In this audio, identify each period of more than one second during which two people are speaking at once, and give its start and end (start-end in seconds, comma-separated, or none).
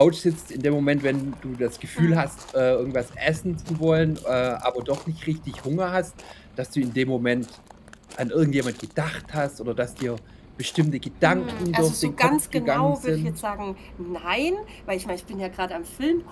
11.2-13.4